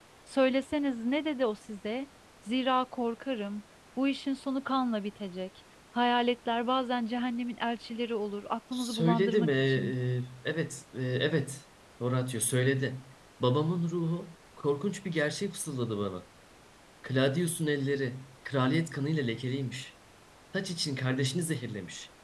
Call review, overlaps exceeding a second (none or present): present